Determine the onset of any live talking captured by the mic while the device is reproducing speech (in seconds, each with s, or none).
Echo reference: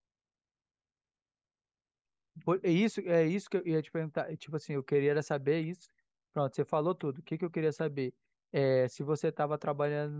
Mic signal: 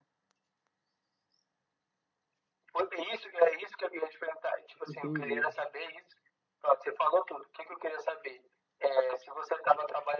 4.8 s